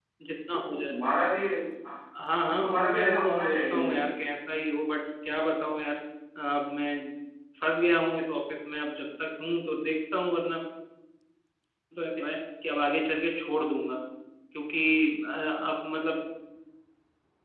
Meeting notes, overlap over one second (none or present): present